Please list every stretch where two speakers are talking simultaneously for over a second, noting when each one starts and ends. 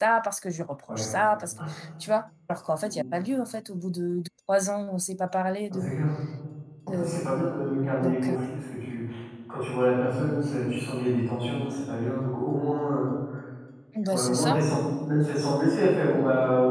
none

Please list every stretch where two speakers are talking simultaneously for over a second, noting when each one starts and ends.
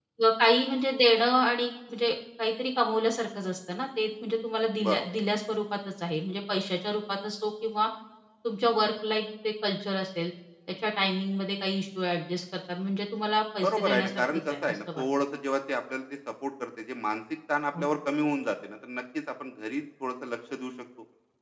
13.6-15.0

